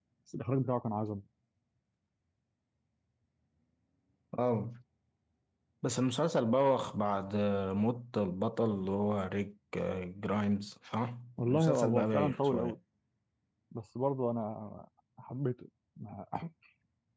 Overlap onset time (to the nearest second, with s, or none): 11 s